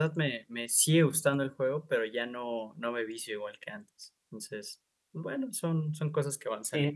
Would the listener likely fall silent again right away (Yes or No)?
No